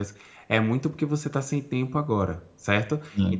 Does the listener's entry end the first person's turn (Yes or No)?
No